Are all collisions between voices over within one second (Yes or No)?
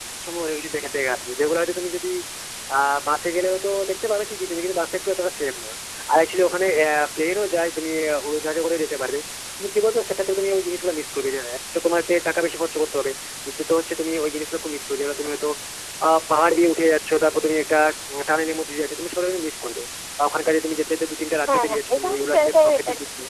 No